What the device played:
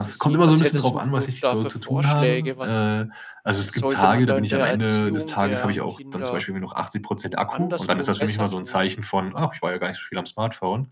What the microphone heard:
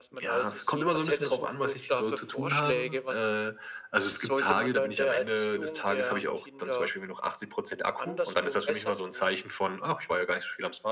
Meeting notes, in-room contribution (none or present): none